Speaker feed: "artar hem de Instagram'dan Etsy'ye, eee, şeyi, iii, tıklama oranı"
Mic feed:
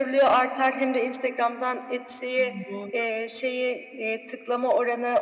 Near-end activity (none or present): present